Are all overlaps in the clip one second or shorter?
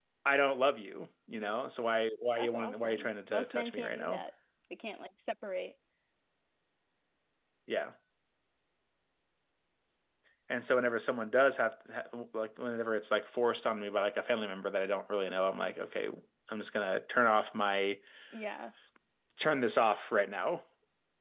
No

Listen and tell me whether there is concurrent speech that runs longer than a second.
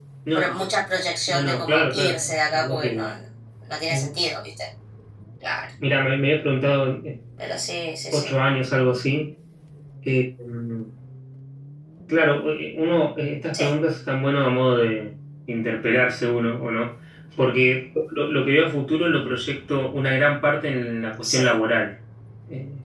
Yes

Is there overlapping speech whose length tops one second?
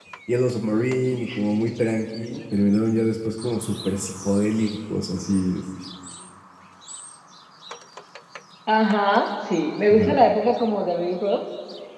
No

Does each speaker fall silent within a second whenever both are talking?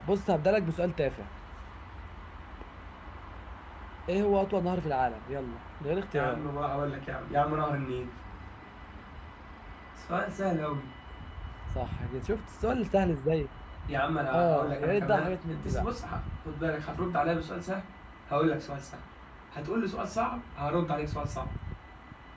No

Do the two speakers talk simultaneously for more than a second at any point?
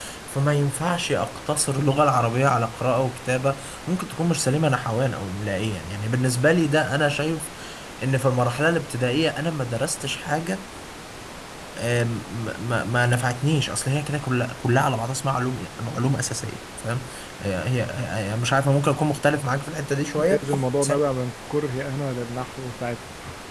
No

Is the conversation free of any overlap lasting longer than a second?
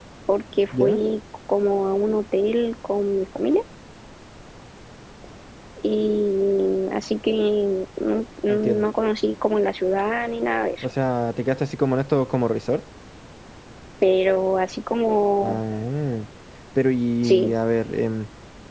Yes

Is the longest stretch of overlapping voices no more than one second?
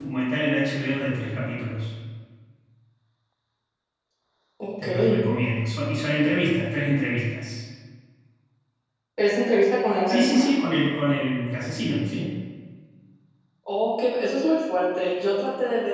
Yes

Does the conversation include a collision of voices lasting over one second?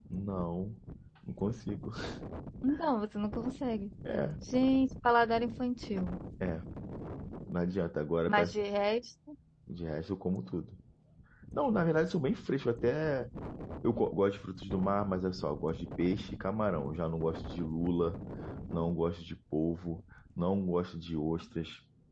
No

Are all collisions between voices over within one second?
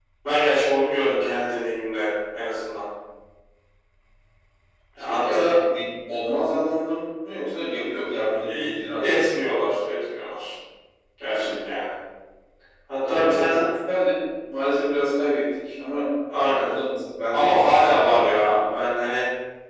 No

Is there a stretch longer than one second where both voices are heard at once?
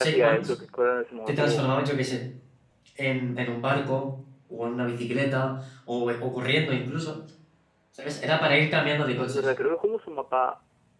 No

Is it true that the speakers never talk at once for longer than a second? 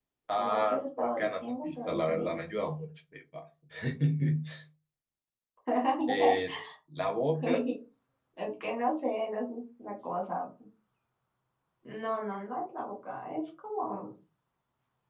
No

